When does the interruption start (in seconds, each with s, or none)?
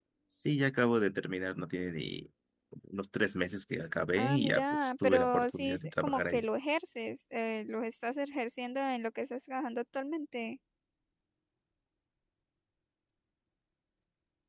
4.2 s